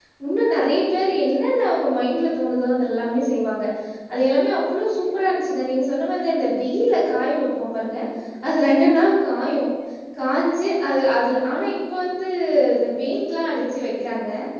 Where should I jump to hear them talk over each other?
none

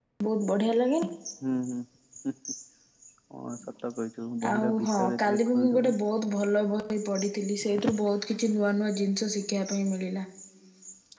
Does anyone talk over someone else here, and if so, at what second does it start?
4.5 s

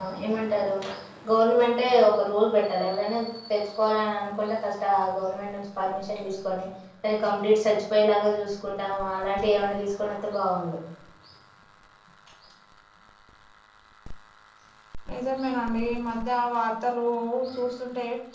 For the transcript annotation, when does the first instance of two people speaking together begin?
none

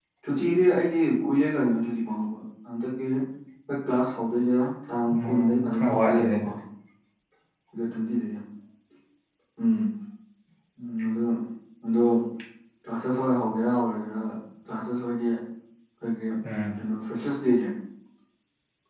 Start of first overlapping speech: 5.1 s

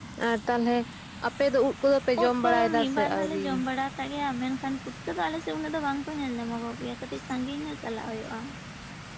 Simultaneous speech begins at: 2.2 s

